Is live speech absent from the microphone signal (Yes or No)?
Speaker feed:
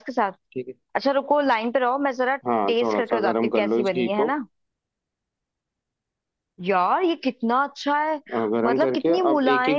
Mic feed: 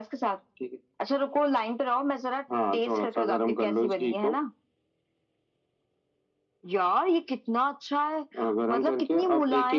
Yes